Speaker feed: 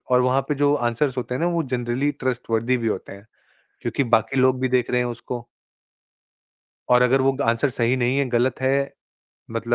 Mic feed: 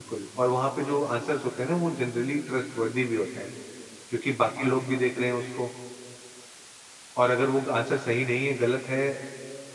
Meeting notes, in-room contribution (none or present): none